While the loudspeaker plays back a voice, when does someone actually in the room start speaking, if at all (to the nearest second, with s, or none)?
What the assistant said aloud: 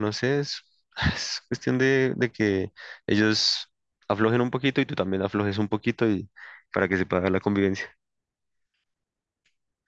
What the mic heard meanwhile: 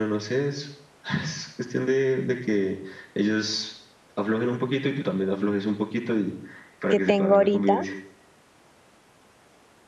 7 s